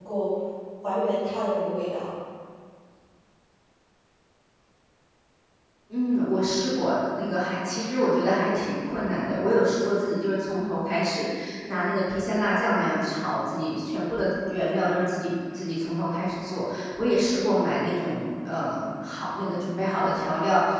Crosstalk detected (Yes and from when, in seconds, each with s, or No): No